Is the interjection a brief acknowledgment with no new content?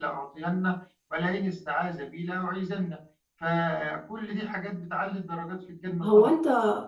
No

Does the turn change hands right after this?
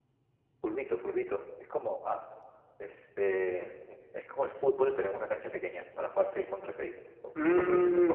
Yes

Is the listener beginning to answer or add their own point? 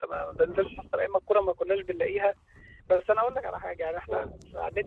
No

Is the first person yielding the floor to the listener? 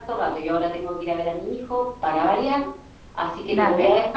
No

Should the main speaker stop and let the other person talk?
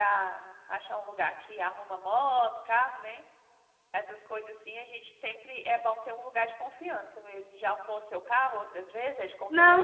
Yes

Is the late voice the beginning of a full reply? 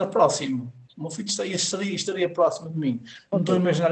No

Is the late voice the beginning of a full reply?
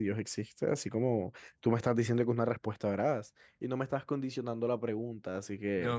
Yes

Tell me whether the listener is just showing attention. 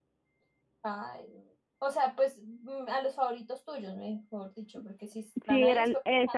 No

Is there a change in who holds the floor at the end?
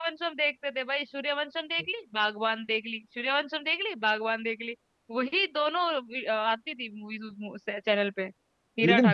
Yes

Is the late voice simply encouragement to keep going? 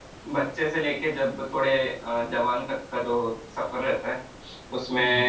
Yes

